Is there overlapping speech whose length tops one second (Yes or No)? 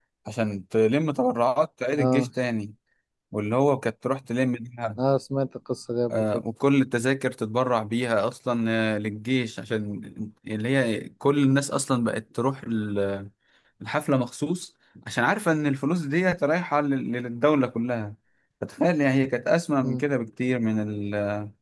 No